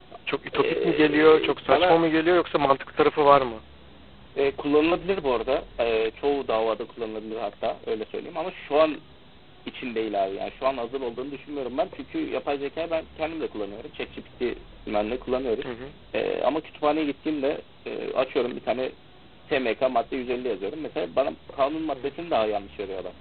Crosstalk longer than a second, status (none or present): present